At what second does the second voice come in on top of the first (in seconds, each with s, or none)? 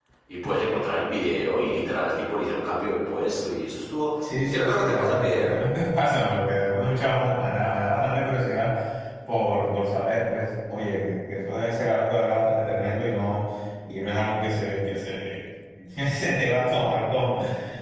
4.2 s